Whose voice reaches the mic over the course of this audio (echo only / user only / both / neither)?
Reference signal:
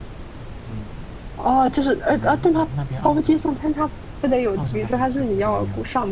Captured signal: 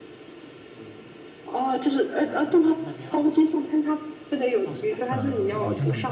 both